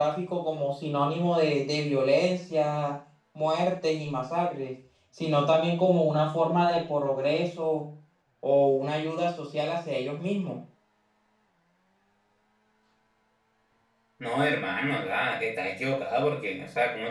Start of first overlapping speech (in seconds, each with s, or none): none